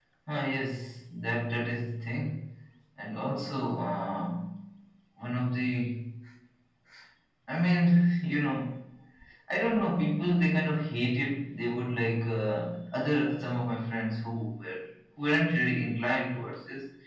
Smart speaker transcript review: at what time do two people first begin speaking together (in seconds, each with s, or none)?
none